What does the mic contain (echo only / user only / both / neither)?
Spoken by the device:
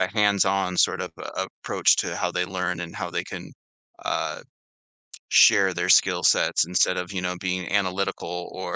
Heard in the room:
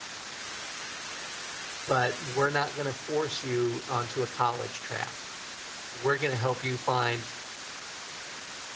user only